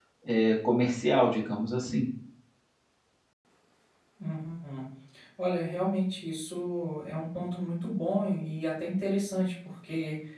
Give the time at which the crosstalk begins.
none

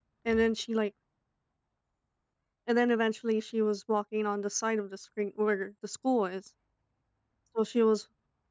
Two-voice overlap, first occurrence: none

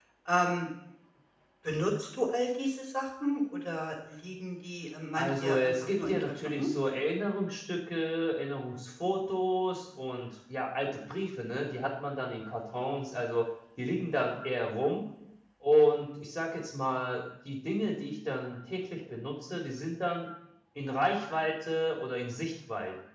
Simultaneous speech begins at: 5.1 s

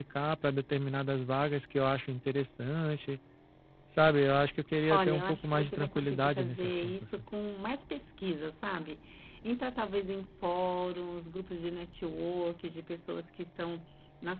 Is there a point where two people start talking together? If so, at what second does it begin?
4.8 s

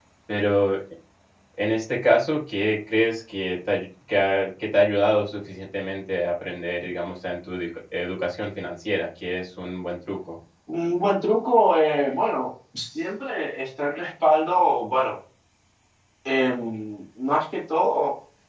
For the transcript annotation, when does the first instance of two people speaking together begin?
none

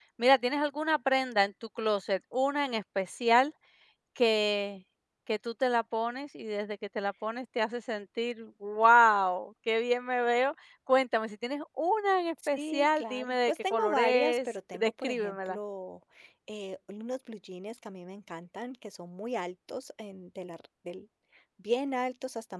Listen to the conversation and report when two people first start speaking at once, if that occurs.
12.4 s

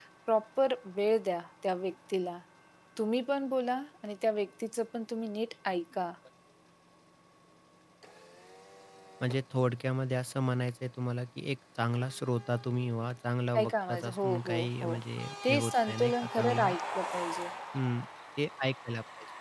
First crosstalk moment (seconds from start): 13.5 s

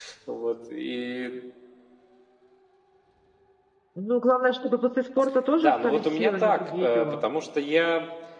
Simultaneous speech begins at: 5.6 s

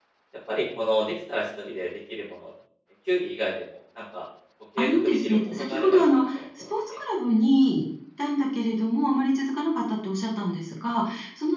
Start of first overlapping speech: 4.8 s

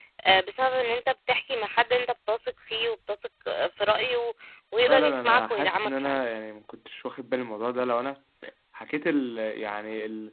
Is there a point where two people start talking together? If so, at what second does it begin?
4.9 s

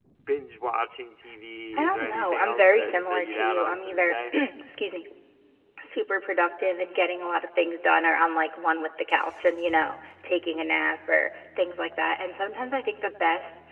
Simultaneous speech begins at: 1.7 s

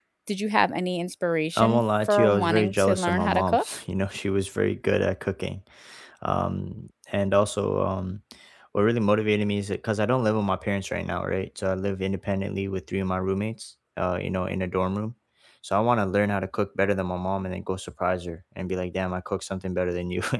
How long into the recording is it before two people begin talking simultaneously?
1.6 s

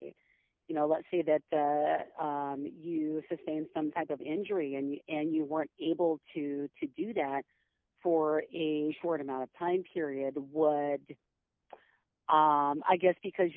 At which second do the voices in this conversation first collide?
none

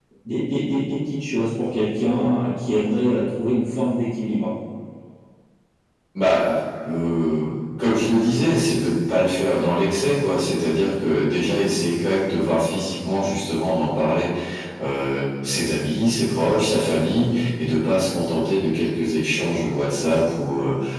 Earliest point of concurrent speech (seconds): none

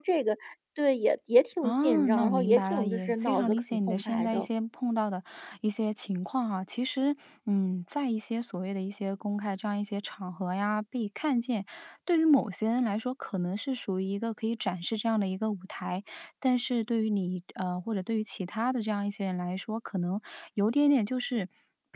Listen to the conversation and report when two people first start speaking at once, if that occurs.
1.6 s

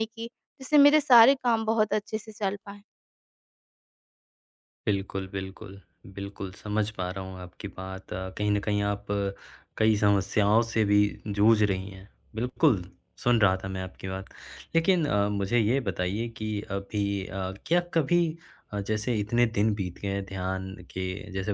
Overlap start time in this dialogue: none

